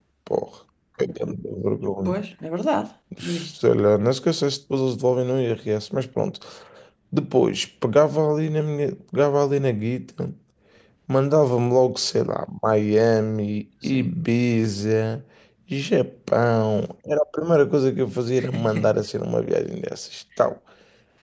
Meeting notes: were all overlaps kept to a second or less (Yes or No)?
Yes